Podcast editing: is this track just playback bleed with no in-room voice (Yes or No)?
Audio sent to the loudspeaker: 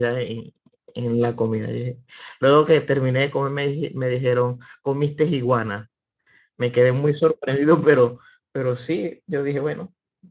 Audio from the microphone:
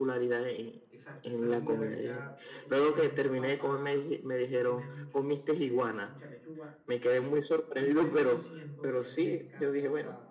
No